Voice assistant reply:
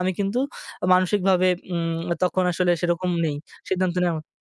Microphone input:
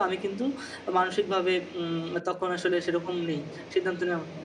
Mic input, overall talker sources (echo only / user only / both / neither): echo only